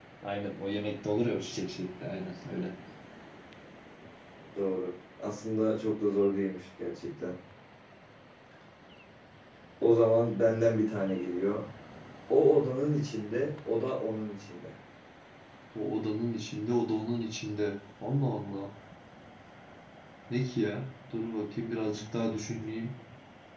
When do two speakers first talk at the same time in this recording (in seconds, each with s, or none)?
none